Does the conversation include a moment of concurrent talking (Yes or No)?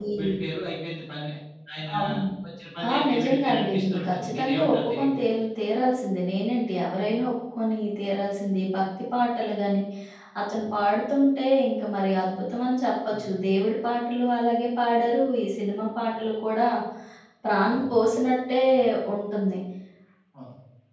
Yes